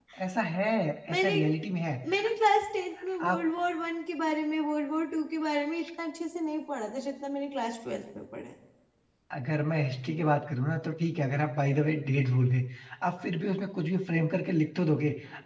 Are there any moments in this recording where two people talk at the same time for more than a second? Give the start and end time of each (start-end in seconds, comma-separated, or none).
none